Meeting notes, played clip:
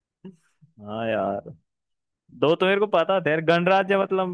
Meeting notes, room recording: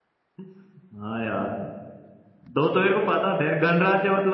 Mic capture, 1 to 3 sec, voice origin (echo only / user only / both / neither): echo only